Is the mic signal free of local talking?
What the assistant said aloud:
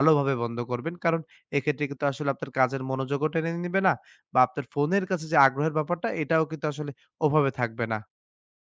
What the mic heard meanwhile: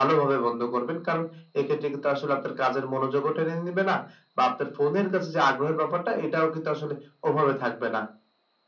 Yes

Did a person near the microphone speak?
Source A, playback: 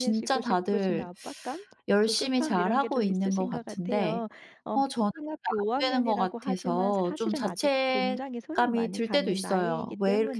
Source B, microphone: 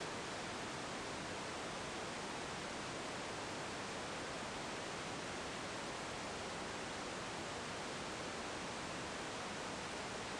No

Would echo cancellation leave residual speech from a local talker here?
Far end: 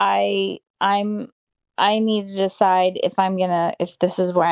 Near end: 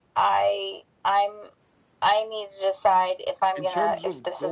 Yes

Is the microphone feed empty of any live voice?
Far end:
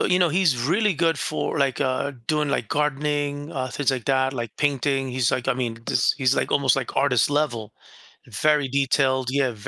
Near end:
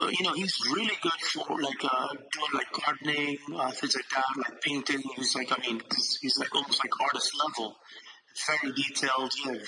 Yes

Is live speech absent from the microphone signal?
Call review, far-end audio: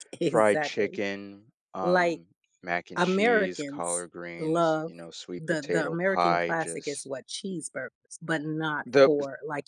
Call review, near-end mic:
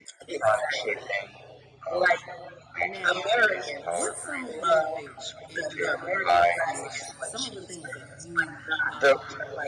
No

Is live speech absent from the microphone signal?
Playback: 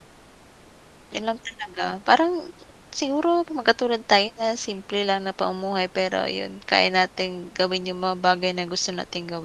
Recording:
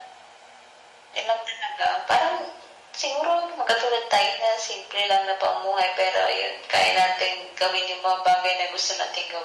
Yes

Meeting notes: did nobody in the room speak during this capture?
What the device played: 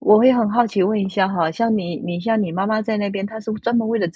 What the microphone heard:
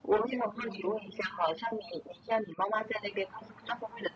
No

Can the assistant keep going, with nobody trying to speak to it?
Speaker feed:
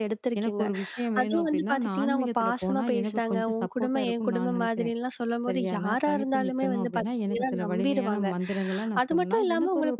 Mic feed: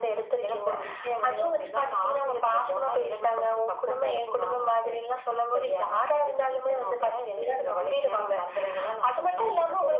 Yes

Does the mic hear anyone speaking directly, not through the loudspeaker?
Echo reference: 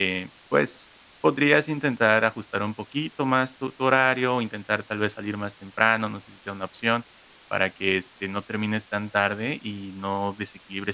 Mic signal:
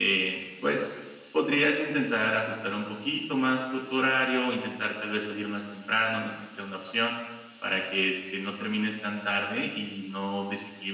No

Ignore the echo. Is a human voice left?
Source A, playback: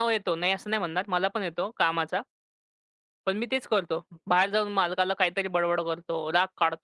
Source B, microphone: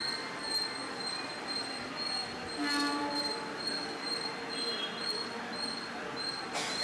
No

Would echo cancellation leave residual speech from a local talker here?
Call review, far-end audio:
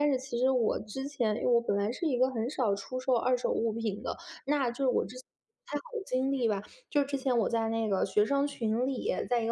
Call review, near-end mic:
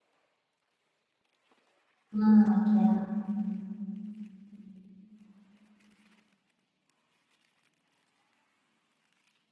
Yes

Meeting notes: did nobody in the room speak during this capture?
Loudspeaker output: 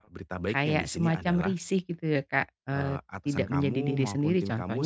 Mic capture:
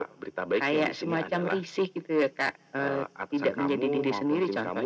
Yes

